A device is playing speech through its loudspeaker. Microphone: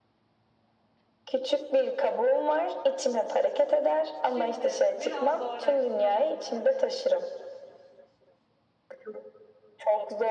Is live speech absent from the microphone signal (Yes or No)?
No